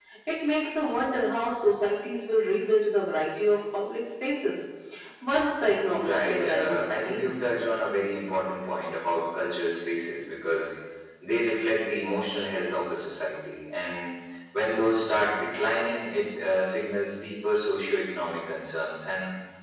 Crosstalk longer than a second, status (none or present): present